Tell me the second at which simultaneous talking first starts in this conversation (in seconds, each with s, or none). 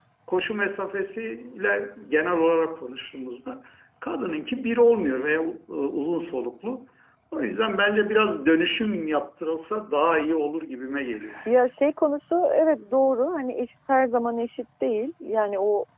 none